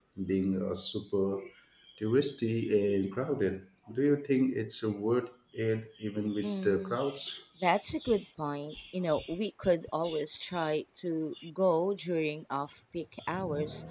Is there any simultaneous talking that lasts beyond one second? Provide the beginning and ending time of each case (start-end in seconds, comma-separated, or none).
none